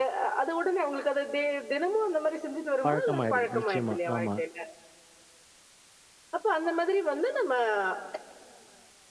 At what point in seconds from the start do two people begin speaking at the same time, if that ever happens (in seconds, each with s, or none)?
2.8 s